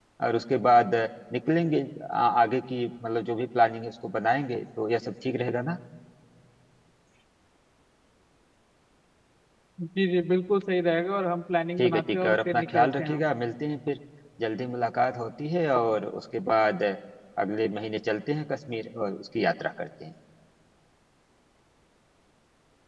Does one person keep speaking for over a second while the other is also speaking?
Yes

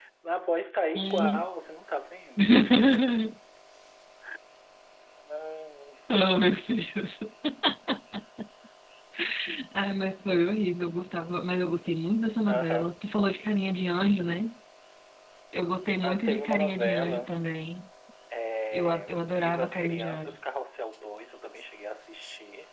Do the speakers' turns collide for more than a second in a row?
Yes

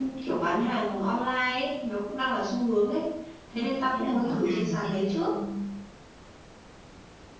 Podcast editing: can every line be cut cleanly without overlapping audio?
No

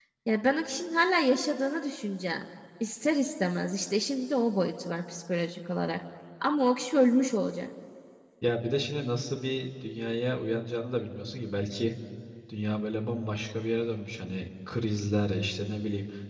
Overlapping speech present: No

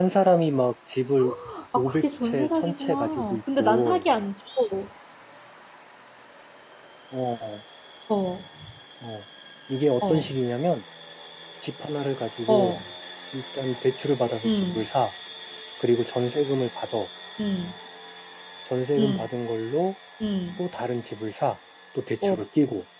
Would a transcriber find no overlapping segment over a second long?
No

